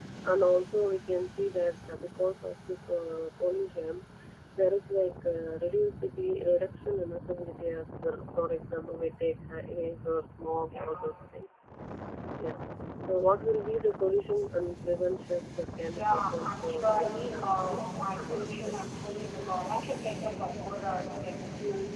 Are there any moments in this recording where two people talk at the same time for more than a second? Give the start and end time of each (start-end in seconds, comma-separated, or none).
15.9-18.8